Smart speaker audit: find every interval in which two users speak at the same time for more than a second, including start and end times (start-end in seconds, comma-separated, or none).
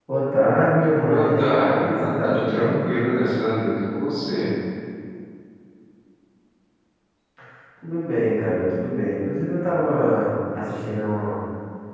1.0-2.7